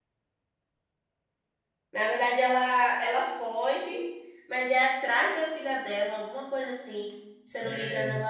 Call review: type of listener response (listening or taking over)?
listening